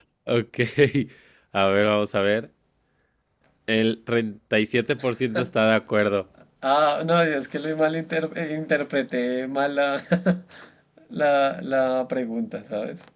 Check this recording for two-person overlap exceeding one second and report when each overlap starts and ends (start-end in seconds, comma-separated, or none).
none